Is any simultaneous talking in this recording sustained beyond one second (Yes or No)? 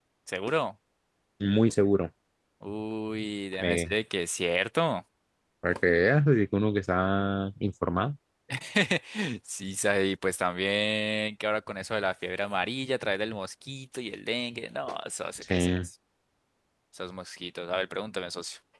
No